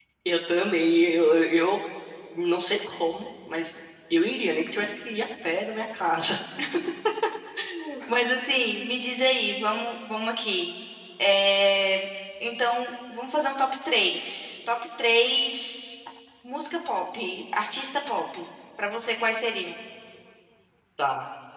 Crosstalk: none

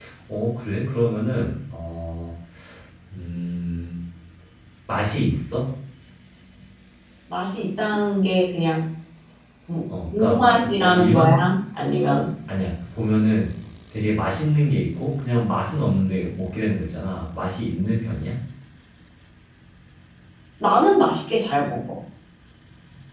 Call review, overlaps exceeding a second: present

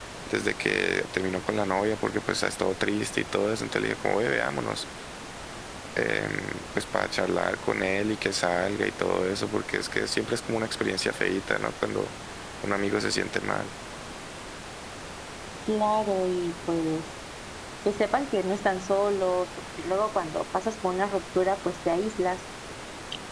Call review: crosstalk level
none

